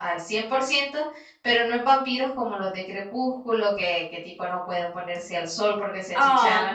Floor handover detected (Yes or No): Yes